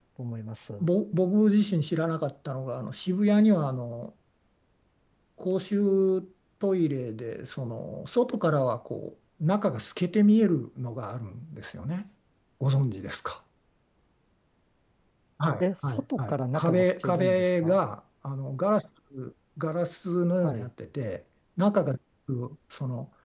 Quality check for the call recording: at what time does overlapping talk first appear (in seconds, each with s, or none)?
15.6 s